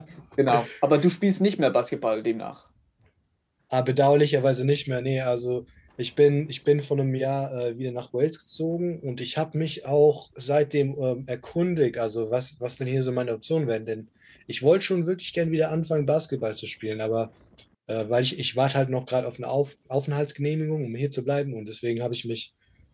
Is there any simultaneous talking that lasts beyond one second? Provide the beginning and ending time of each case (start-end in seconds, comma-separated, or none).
none